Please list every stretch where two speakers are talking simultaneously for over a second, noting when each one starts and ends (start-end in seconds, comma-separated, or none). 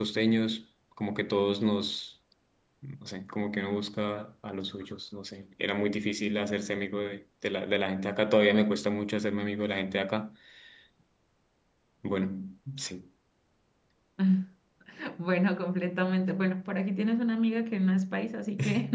none